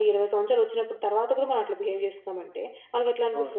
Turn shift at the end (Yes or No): No